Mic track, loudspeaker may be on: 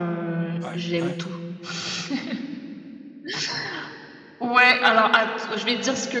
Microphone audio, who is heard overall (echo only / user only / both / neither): both